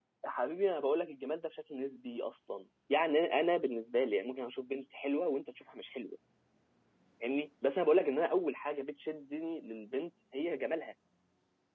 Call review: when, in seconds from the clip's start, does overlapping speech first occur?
none

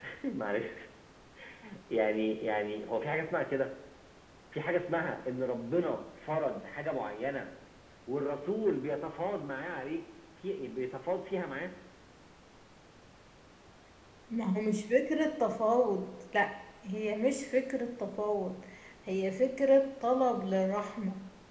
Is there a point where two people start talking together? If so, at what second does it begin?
none

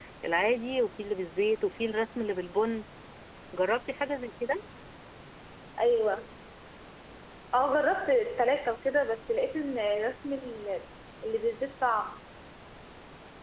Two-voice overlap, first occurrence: none

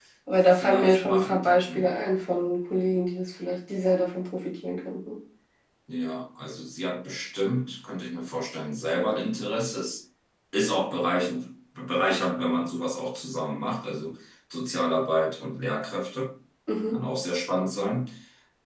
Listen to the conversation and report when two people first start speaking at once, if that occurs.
0.5 s

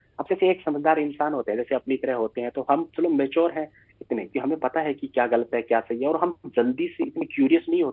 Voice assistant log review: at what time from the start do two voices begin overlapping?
none

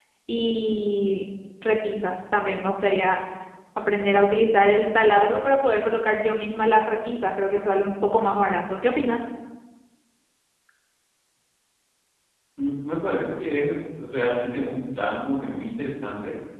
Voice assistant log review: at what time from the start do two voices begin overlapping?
none

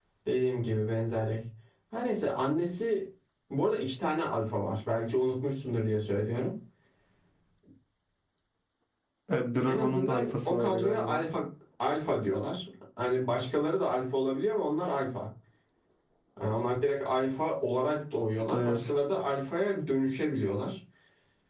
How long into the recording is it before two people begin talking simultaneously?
9.7 s

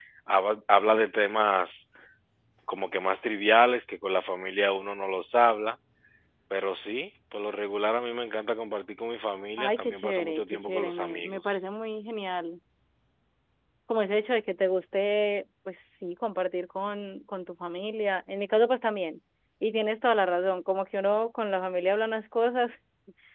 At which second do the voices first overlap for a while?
9.6 s

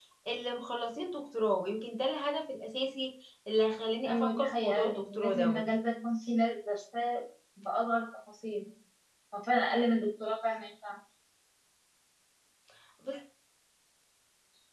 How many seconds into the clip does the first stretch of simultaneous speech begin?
4.0 s

